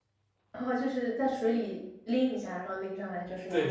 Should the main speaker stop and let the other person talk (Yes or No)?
Yes